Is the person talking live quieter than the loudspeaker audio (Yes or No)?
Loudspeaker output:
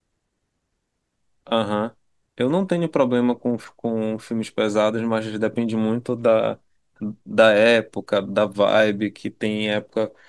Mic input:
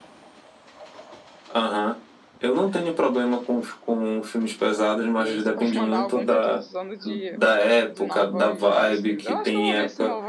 Yes